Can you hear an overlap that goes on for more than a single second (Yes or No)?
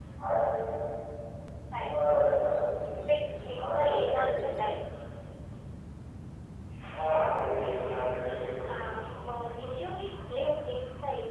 Yes